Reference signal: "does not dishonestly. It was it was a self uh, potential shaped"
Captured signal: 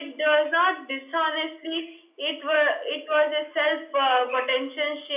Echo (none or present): present